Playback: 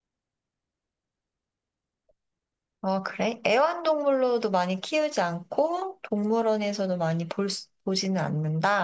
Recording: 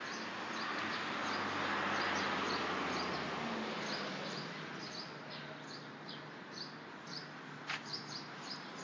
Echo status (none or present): none